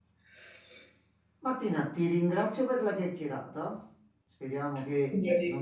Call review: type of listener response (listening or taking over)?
listening